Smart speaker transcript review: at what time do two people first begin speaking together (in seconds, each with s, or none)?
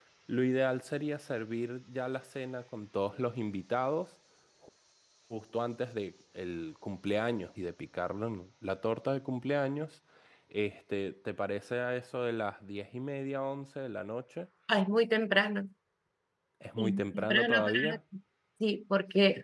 16.8 s